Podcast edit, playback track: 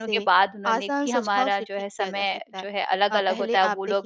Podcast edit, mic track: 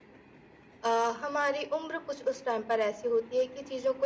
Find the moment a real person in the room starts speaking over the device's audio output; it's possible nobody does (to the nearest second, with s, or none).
1 s